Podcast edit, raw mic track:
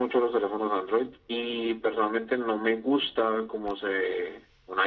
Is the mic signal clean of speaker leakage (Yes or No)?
No